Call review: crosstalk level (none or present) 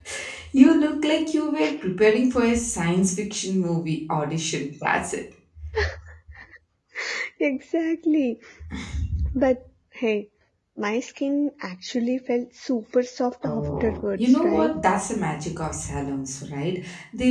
present